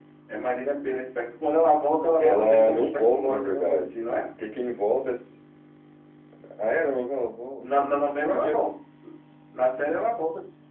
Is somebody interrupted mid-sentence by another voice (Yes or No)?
Yes